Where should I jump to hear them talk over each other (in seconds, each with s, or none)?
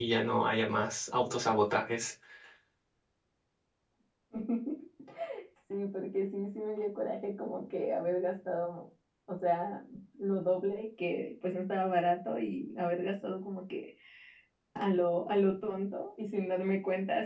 none